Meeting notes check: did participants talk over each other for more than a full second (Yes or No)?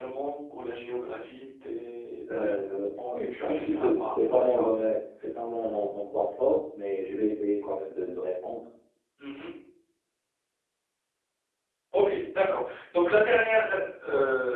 Yes